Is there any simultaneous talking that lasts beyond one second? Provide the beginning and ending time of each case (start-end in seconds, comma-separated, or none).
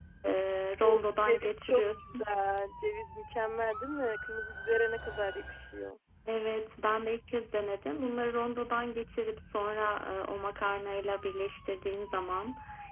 0.8-2.2